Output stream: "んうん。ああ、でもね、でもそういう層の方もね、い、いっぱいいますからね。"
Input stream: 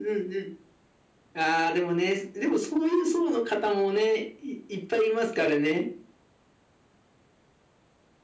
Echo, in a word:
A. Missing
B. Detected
B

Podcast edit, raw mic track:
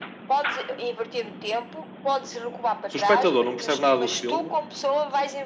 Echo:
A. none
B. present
B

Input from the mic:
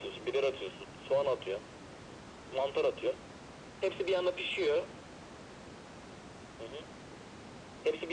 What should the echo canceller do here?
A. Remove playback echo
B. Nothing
A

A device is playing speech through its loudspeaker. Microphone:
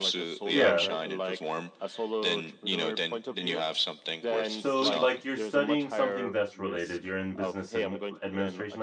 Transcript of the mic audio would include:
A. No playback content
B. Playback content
B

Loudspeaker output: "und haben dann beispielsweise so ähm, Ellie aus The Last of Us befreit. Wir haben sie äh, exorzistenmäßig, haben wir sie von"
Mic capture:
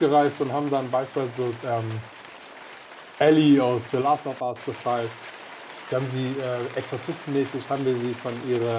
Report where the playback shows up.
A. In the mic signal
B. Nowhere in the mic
A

